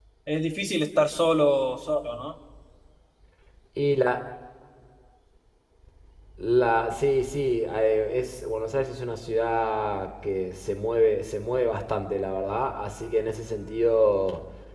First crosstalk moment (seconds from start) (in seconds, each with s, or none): none